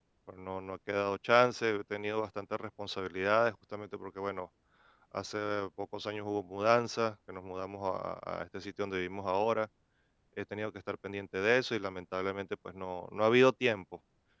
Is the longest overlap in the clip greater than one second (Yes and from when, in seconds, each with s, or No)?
No